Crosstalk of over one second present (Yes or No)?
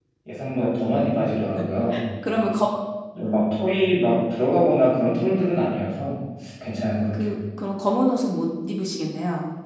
No